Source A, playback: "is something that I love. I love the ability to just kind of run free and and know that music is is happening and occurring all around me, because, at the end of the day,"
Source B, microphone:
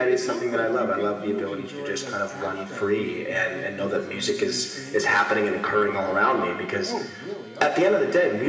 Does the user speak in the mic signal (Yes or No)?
Yes